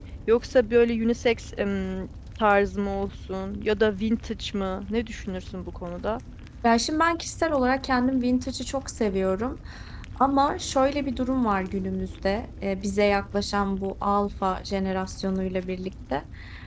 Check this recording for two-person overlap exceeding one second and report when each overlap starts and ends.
none

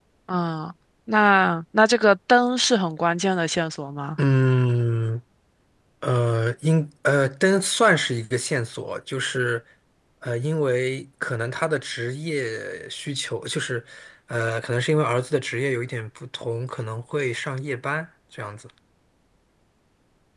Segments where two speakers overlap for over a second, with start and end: none

